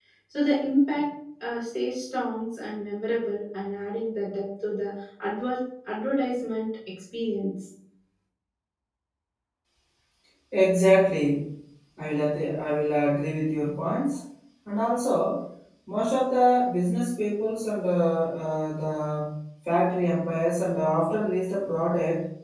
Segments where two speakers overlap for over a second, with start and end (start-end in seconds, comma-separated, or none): none